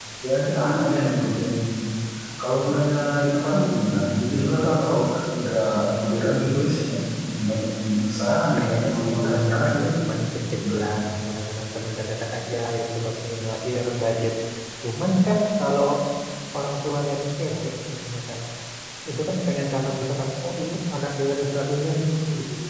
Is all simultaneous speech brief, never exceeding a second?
No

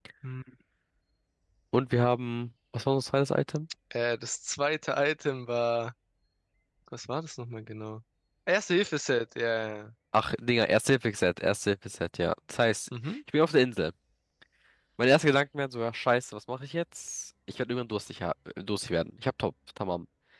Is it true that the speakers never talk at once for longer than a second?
Yes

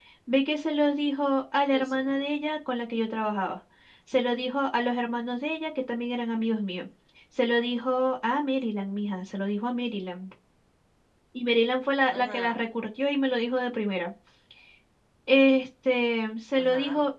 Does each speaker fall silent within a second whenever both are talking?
Yes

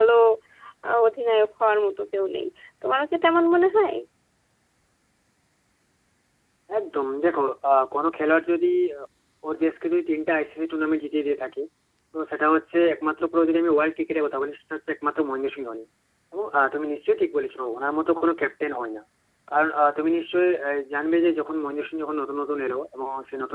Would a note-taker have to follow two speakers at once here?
No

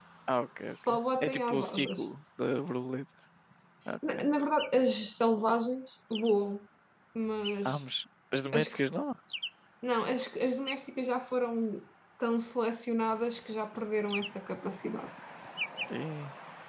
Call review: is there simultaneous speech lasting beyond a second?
Yes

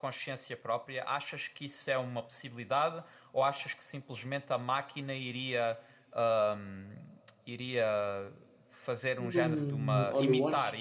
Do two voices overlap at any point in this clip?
Yes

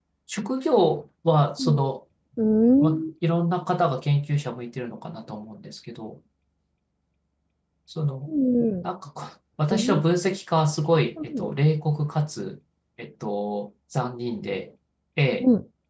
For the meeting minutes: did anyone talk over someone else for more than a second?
No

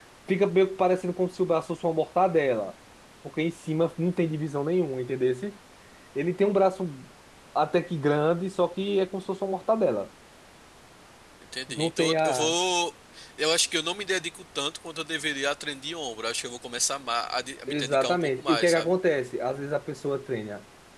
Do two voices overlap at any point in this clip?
Yes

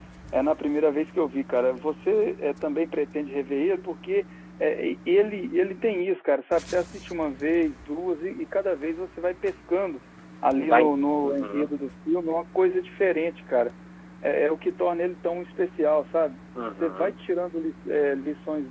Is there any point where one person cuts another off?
Yes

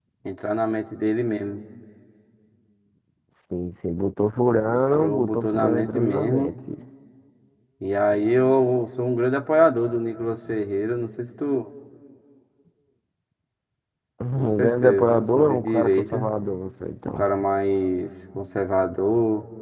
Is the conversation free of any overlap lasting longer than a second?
No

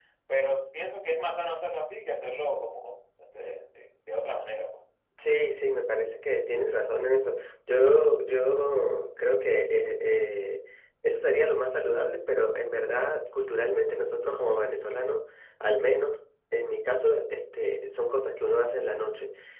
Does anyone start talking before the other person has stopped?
No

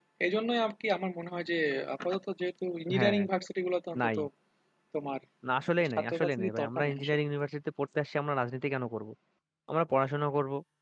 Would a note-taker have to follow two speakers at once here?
Yes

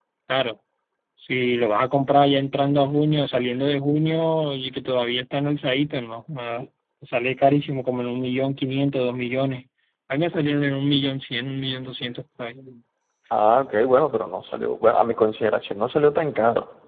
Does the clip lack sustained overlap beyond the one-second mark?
Yes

